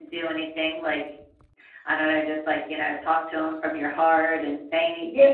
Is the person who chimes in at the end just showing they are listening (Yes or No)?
No